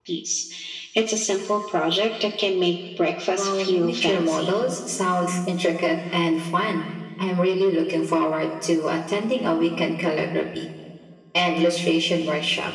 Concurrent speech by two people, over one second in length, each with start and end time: 3.4-4.6

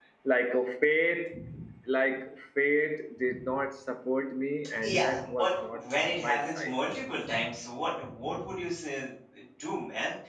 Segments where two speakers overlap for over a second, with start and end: 4.8-6.7

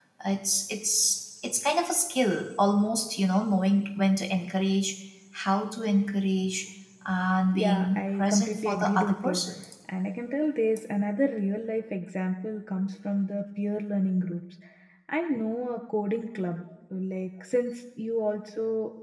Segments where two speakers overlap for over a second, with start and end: 7.6-9.4

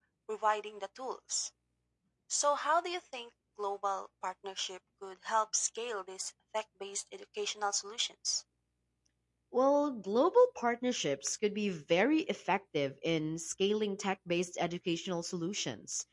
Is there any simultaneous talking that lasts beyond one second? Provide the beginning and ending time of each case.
none

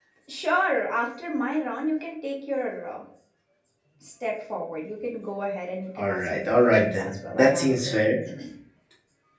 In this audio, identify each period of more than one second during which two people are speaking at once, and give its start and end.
6.0-8.0

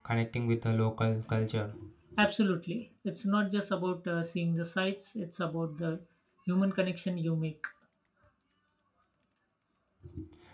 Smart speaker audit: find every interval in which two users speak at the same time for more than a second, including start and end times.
none

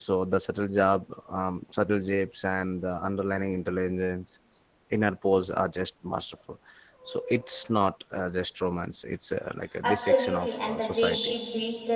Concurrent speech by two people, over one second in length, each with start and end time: 9.8-11.3

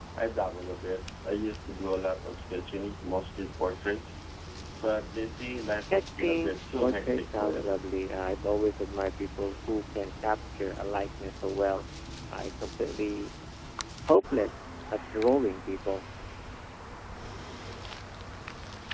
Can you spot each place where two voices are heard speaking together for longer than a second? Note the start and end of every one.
5.8-7.7

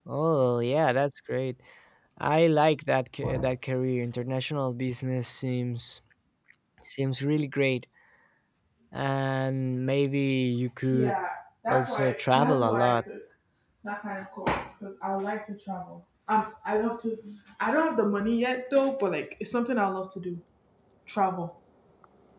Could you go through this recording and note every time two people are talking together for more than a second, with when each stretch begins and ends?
11.7-13.0

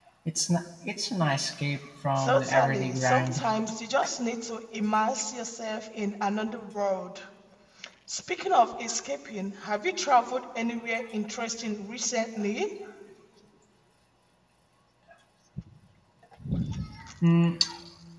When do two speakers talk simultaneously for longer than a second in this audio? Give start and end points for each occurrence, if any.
2.2-3.4

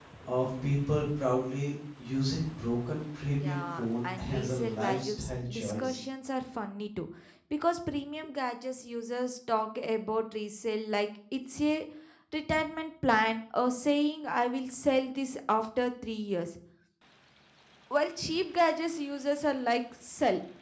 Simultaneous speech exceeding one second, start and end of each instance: 3.4-6.0

